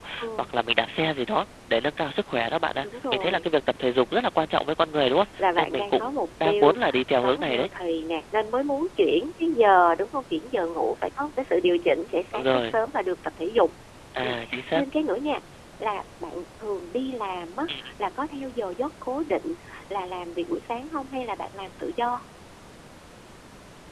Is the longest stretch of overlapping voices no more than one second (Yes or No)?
No